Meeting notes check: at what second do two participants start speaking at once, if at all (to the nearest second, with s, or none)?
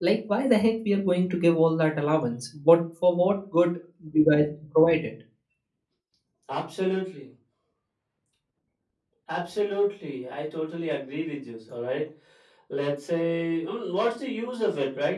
none